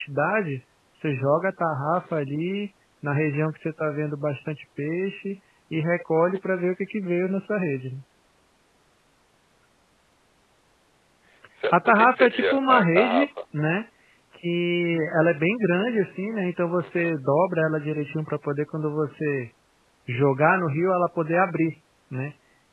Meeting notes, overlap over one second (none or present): present